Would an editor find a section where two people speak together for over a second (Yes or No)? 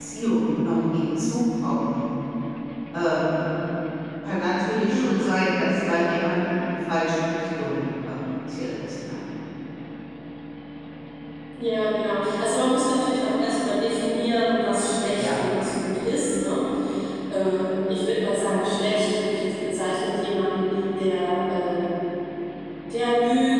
No